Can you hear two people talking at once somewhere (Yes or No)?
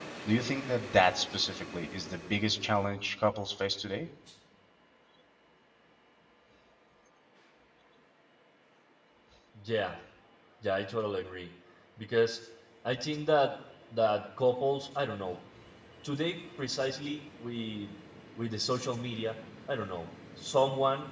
No